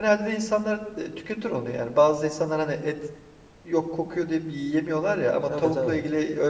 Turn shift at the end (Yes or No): No